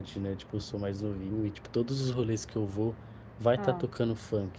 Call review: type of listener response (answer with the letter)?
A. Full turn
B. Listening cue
B